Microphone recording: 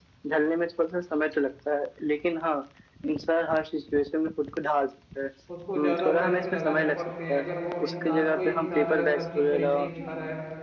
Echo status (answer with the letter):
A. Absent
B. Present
B